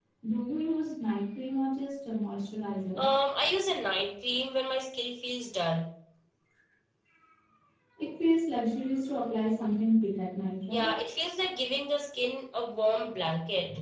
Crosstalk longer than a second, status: none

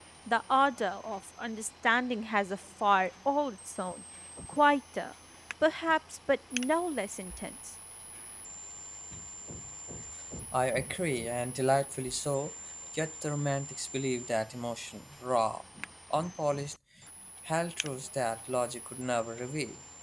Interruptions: none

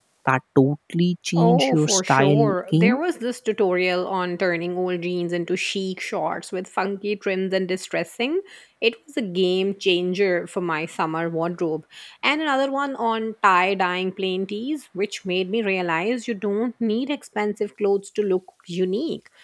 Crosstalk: present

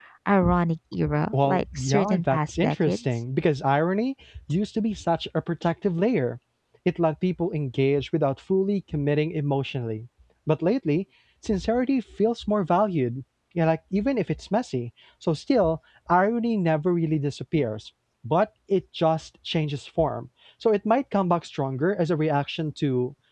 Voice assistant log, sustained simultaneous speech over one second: present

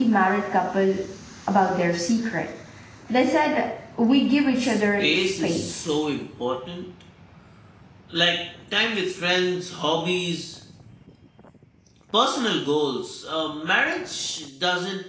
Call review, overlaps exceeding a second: present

